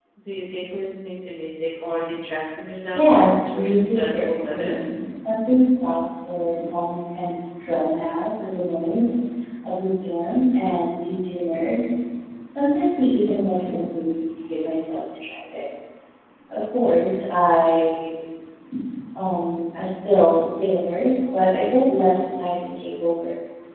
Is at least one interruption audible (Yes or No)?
Yes